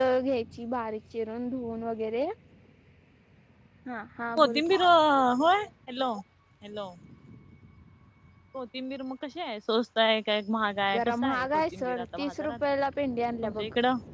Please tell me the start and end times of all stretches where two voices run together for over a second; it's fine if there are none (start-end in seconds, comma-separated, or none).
10.9-12.6